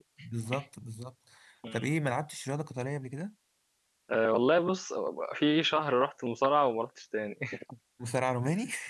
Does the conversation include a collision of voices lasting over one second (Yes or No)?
No